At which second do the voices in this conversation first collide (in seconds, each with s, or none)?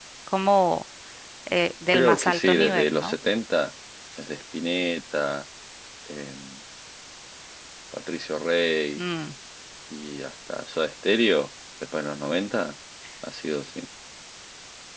1.9 s